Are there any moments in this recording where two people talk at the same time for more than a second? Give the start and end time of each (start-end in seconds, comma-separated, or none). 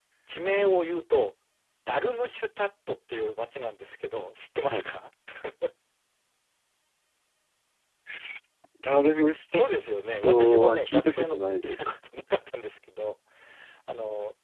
10.2-12.0